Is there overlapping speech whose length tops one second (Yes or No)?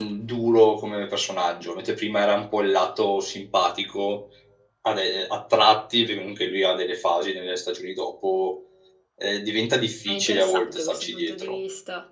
Yes